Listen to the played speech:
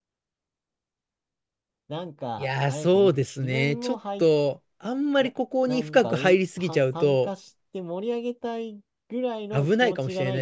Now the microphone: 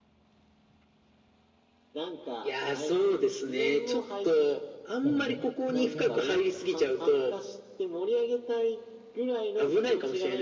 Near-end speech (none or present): present